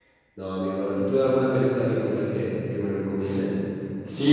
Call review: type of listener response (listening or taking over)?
taking over